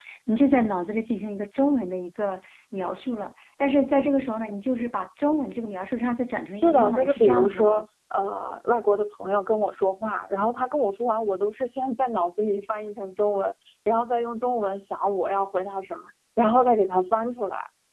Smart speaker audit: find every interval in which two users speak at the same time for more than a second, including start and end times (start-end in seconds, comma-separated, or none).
6.6-7.8